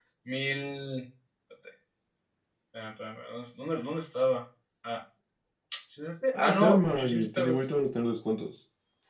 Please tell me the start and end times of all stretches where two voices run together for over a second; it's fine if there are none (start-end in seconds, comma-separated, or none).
6.3-7.6